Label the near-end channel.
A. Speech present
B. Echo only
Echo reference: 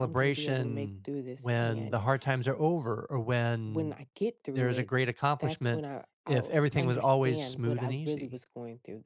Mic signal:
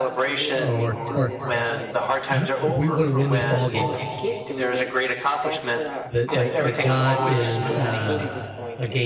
A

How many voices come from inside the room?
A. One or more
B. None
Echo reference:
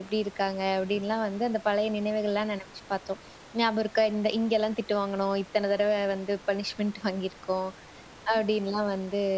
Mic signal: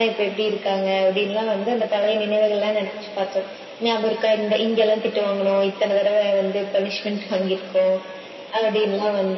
B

